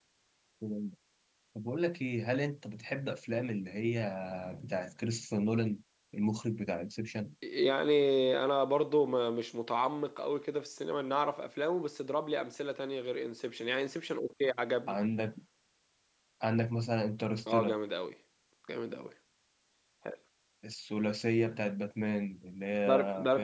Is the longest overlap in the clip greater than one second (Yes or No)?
No